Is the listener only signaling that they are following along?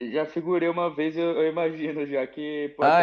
Yes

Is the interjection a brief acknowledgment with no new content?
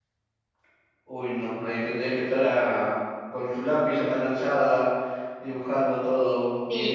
No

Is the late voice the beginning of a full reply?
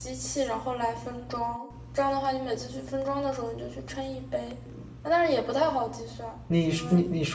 Yes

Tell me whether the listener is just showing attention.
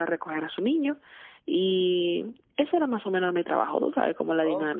No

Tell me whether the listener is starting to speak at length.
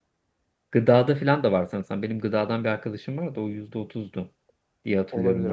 Yes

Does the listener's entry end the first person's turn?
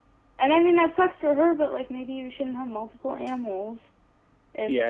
Yes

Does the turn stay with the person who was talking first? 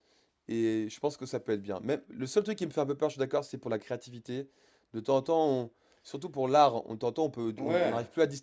Yes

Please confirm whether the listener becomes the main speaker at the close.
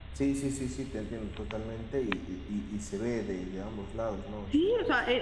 Yes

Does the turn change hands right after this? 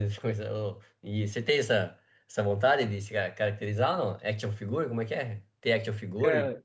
Yes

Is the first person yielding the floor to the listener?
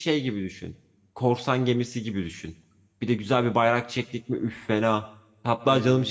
No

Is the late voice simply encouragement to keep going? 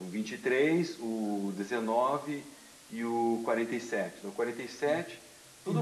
No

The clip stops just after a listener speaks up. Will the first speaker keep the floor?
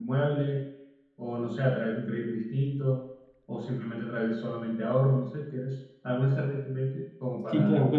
No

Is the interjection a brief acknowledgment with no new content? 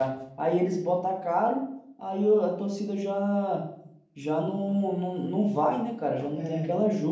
No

